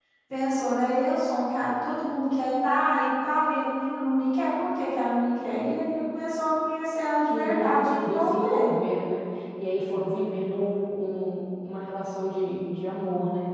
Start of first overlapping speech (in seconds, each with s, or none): 7.3 s